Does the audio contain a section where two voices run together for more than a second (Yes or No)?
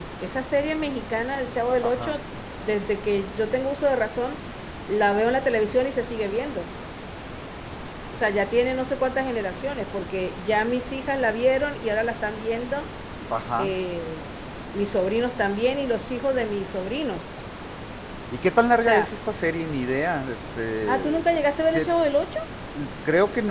No